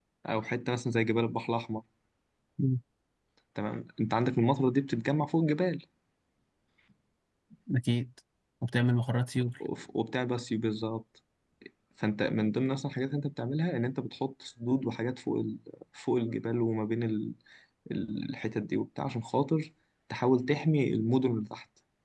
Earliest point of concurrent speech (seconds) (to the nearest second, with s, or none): none